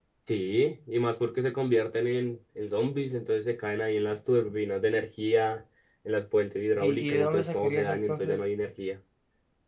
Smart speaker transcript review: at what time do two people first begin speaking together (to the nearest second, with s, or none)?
7 s